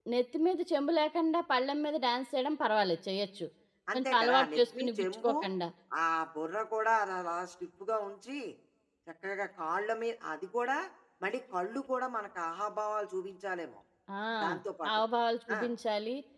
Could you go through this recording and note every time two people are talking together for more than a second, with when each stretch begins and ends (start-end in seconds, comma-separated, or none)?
3.9-5.3